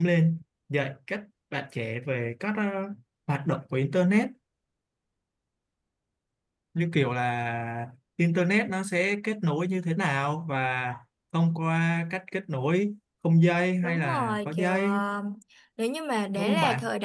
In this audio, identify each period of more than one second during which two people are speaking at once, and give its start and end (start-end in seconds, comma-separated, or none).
13.8-15.0